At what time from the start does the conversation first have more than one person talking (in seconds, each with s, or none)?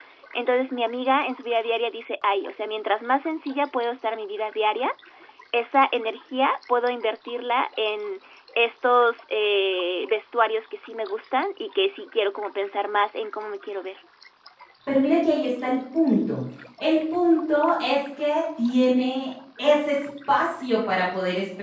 none